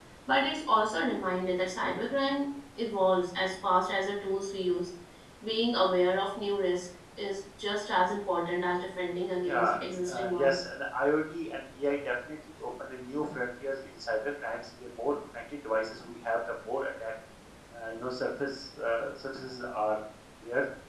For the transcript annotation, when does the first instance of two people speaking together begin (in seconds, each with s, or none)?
9.4 s